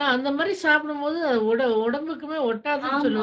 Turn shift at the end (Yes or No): Yes